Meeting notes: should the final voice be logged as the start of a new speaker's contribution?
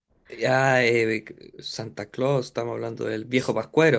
Yes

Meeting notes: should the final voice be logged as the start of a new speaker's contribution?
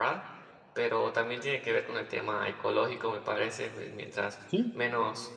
No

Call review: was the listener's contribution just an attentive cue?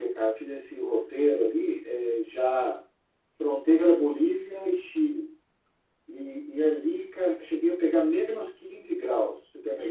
No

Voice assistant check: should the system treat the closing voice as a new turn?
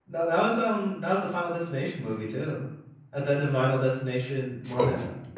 Yes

